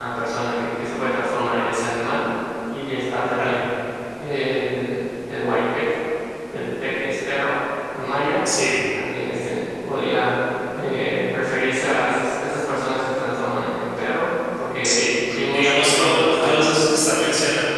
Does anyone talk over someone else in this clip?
Yes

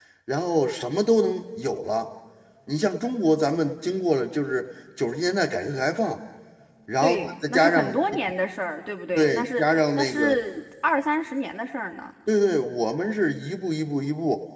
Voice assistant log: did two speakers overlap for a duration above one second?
Yes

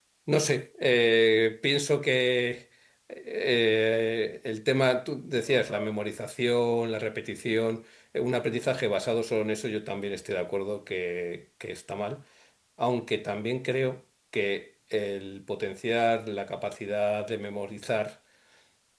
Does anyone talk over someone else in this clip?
No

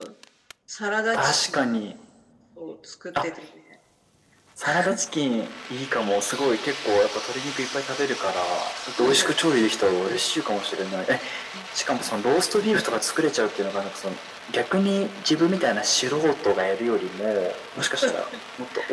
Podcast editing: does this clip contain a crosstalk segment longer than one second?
No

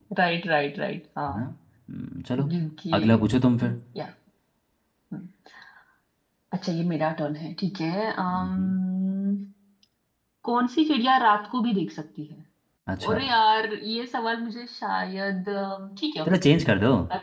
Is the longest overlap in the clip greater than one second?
No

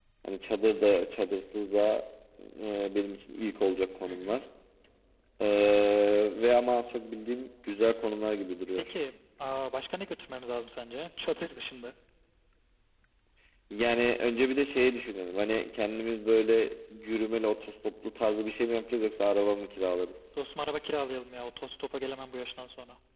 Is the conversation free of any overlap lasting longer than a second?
Yes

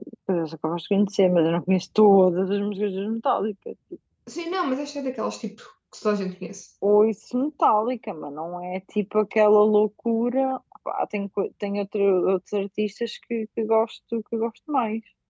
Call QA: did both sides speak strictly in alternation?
Yes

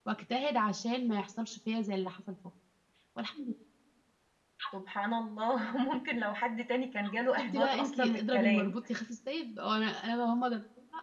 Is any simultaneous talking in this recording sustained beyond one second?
Yes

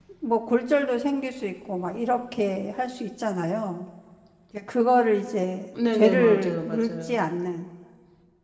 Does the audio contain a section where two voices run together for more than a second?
Yes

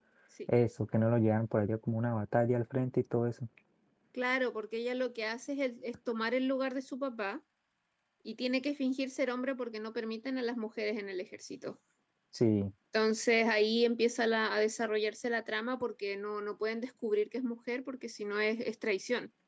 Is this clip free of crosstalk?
Yes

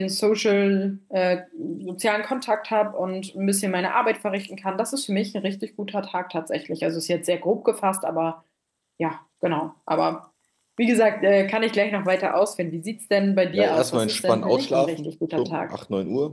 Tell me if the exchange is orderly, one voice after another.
No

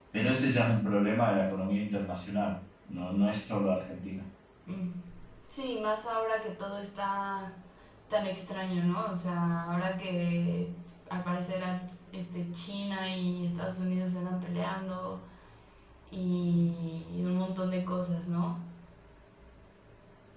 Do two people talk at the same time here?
No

